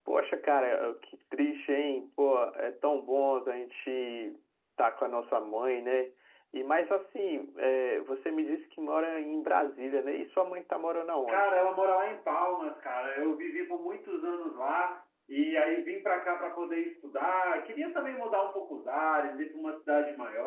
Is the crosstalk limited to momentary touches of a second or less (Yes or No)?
Yes